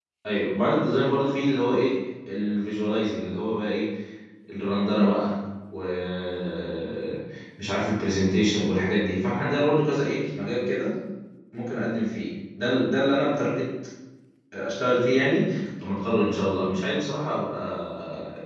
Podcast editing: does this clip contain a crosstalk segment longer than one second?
No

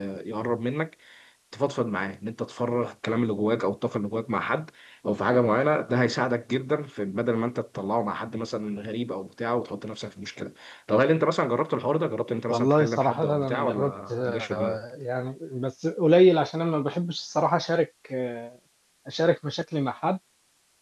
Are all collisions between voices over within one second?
No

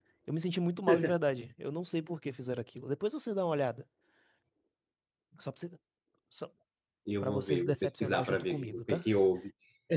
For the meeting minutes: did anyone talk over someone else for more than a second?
Yes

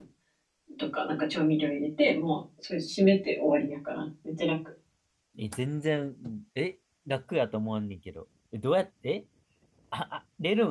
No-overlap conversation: Yes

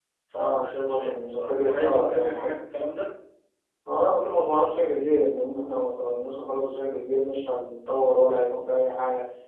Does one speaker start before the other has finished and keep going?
Yes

